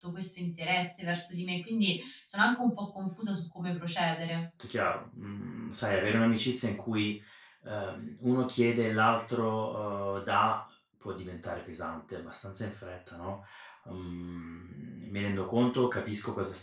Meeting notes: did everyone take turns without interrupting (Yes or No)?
Yes